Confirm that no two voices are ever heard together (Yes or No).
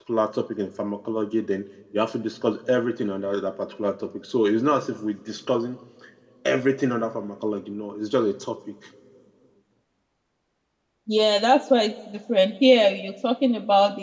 Yes